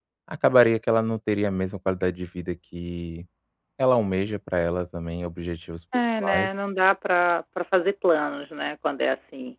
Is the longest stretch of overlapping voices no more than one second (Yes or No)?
Yes